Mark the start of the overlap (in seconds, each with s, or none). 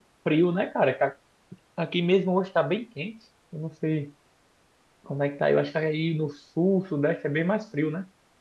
none